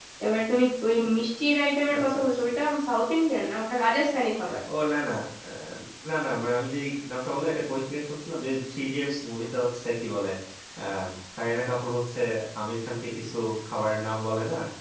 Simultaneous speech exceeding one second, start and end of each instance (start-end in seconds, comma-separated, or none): none